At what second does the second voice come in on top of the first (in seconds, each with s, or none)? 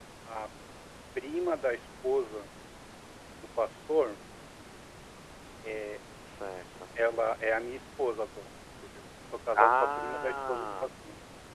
9.6 s